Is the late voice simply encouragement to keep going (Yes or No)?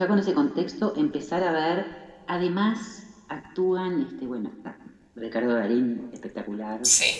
Yes